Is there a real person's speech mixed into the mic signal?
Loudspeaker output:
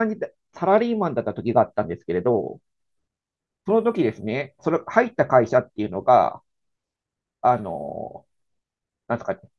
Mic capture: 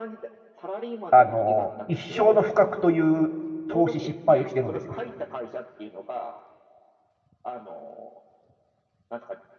Yes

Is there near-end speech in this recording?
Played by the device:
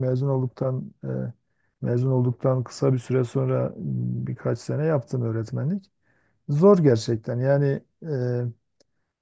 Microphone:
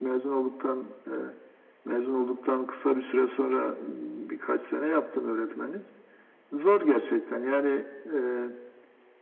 No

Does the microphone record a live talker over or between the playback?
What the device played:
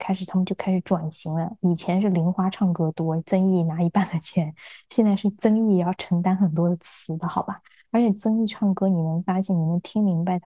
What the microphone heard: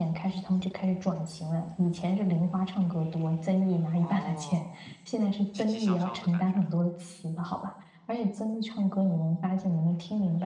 Yes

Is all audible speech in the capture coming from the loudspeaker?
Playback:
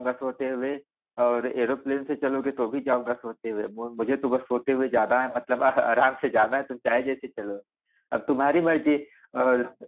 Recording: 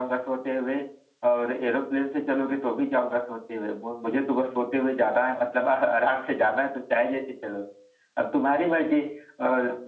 Yes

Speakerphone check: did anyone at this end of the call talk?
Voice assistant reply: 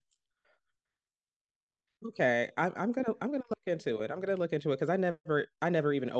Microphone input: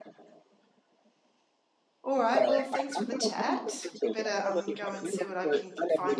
Yes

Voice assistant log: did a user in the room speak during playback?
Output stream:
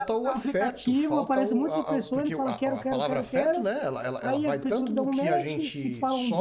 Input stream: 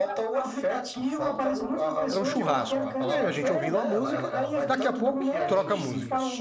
Yes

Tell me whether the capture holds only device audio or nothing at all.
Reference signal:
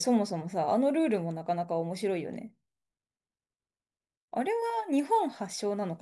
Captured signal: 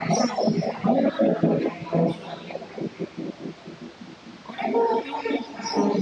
Yes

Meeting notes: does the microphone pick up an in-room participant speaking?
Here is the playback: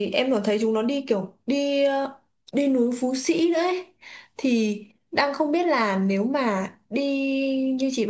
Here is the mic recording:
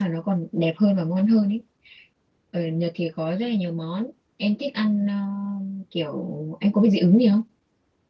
Yes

